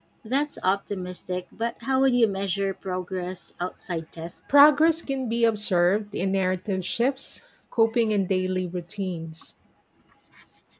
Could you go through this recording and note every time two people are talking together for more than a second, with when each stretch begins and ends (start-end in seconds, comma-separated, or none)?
none